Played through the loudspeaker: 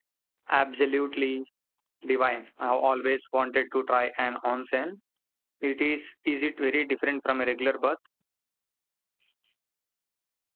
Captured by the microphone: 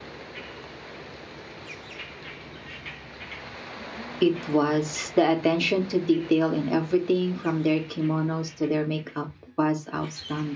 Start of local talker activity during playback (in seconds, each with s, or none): 4.2 s